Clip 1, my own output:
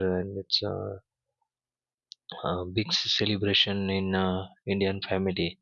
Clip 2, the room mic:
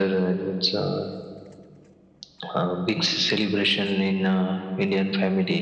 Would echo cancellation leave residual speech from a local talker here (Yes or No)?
No